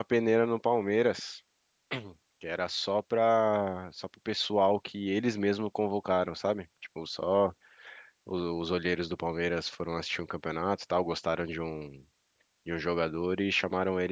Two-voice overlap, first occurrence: none

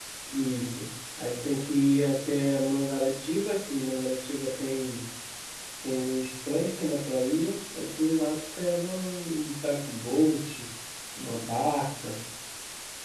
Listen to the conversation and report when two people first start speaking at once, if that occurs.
none

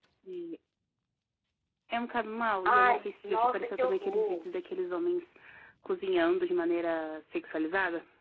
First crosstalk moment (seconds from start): 2.6 s

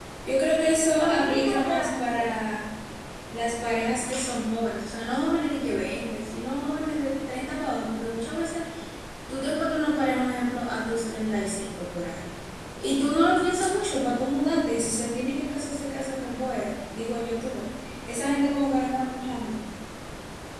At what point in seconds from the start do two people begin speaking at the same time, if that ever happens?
0.6 s

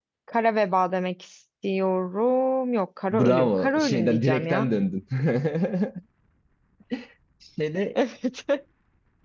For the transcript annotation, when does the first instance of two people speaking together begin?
3.1 s

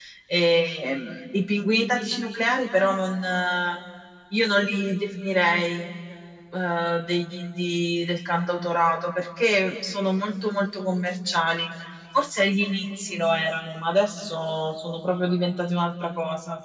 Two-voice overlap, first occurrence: none

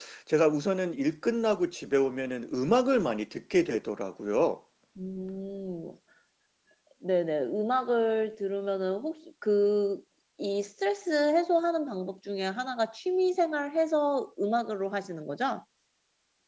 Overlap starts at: none

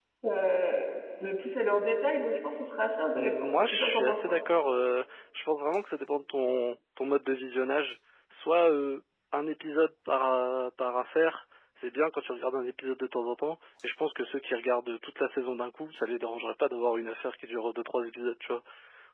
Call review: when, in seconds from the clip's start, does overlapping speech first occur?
3.1 s

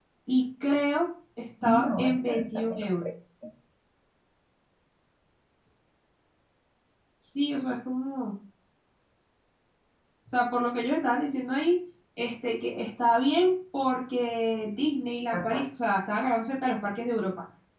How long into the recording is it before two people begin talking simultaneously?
1.6 s

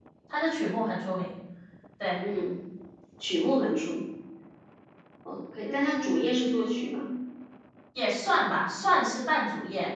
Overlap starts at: 5.7 s

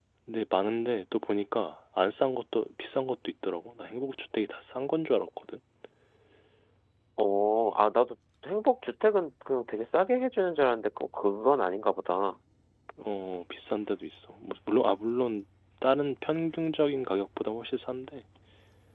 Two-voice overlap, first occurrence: none

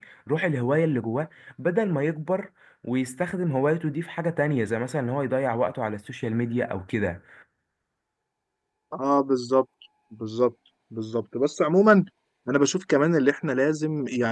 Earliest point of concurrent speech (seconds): none

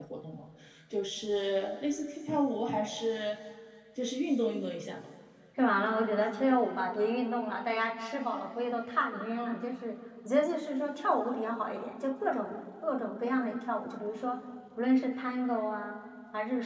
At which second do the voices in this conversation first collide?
none

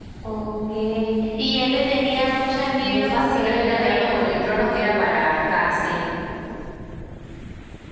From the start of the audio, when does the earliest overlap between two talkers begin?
2.8 s

